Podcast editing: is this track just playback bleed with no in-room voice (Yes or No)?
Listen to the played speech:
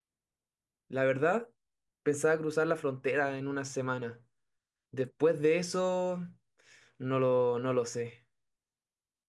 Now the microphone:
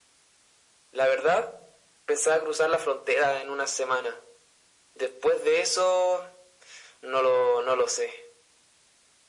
Yes